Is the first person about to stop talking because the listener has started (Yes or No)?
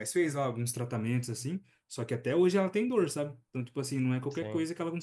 No